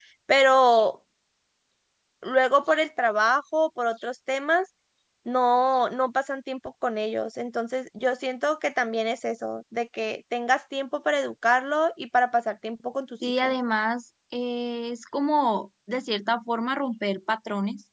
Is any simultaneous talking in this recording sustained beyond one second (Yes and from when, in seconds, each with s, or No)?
No